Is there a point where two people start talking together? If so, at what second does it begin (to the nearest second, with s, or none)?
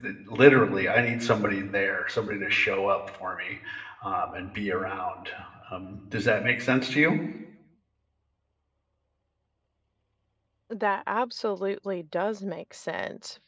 none